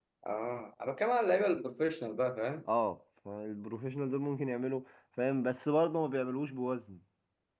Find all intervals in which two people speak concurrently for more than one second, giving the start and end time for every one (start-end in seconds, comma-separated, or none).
none